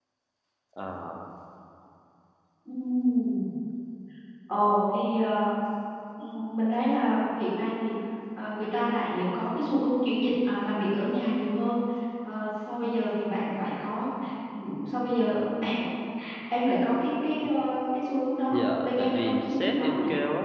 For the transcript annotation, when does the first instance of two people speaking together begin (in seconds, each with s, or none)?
18.5 s